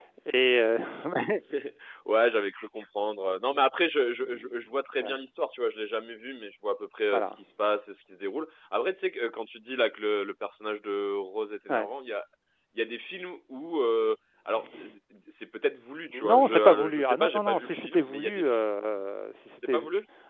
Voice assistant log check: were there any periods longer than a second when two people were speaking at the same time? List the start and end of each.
16.2-18.6

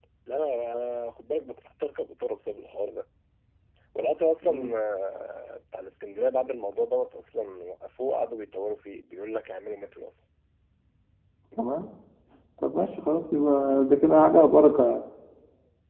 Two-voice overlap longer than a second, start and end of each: none

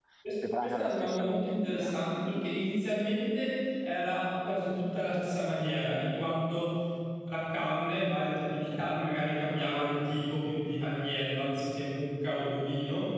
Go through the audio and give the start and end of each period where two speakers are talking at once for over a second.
0.6-1.9

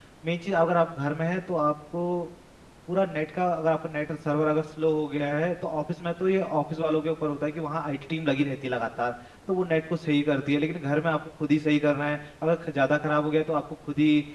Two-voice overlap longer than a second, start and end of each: none

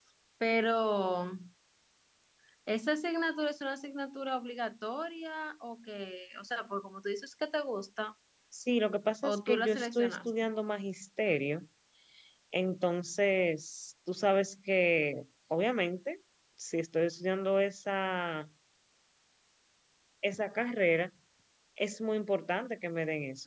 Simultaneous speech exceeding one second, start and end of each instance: 9.2-10.5

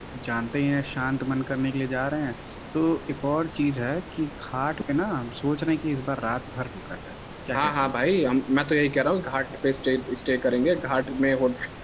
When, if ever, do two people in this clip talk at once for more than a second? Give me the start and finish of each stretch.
none

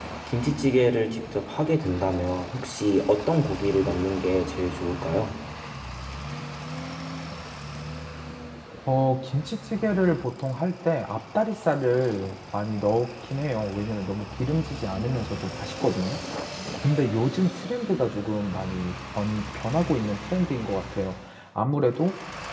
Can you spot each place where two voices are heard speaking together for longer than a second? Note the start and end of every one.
none

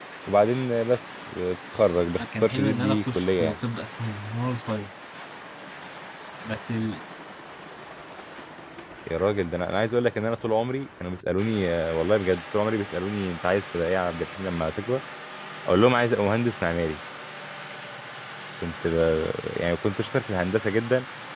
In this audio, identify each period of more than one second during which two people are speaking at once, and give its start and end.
2.2-3.6

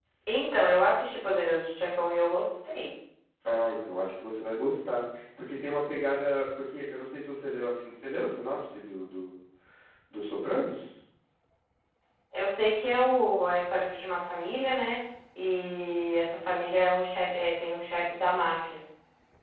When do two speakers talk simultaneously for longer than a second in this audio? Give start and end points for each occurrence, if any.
none

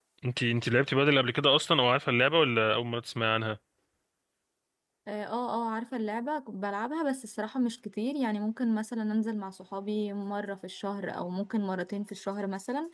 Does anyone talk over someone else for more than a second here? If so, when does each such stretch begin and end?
none

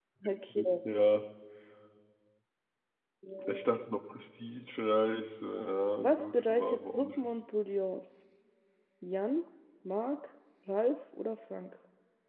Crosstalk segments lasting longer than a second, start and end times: 6.0-7.3

